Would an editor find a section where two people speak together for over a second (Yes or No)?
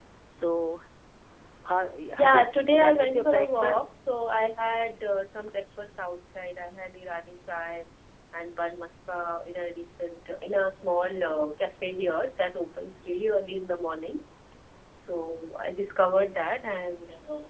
Yes